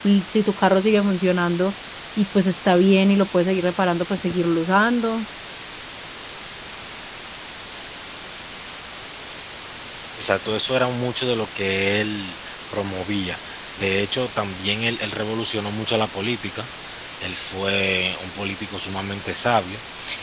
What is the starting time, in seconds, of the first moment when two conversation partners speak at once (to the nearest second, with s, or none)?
none